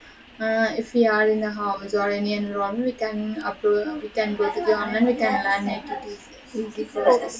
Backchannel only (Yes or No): No